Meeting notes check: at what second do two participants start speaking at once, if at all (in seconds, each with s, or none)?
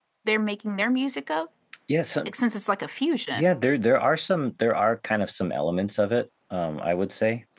none